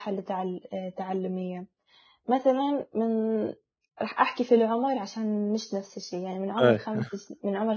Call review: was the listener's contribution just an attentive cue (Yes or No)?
Yes